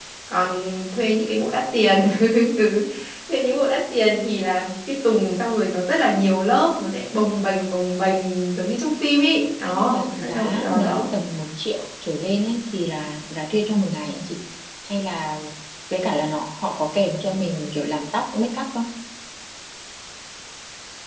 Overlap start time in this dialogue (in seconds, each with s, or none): 9.6 s